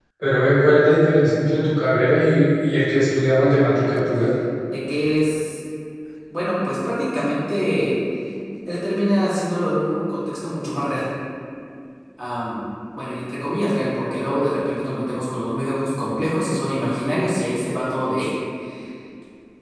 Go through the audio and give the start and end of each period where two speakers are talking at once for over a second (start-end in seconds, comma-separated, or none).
none